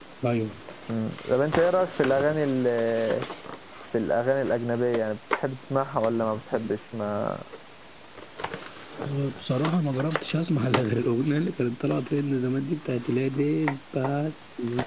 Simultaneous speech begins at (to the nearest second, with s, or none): none